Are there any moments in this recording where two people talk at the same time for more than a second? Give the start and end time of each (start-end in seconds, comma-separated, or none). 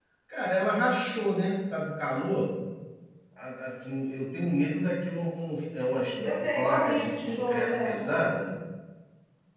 6.6-8.2